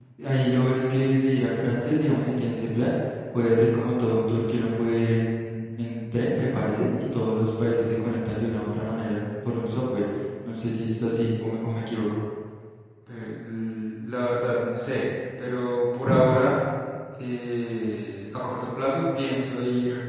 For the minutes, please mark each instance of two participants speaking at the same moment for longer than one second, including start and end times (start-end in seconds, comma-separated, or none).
none